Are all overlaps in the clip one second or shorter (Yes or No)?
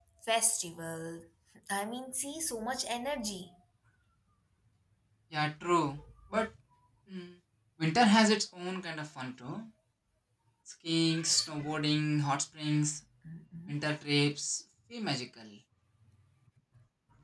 Yes